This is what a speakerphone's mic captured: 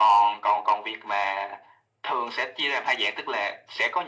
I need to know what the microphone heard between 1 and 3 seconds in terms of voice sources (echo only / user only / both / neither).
echo only